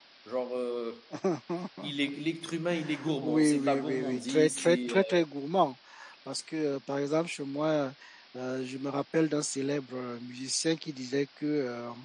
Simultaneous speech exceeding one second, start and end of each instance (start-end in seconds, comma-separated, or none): 3.2-5.2